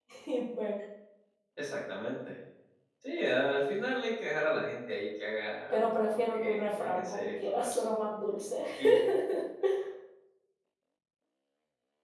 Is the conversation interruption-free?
No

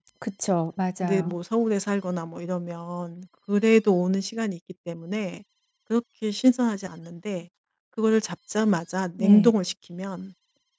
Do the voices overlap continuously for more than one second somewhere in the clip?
No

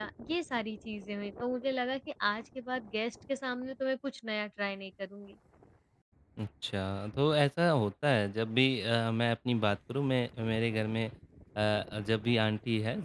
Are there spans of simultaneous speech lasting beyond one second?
No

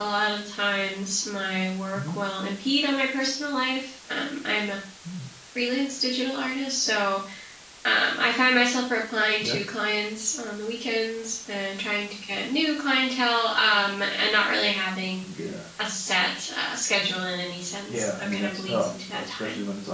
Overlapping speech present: Yes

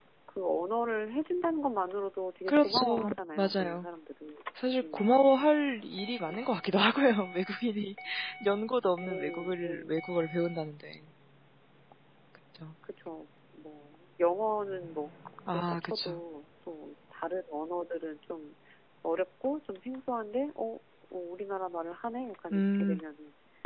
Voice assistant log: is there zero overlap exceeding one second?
No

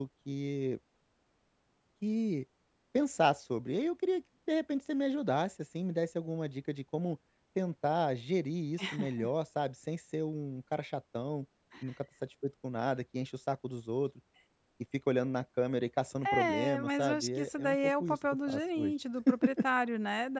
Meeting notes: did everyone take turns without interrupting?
No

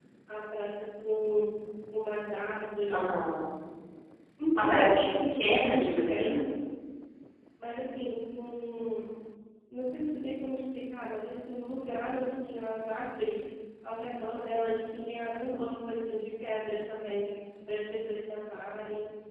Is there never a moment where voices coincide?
No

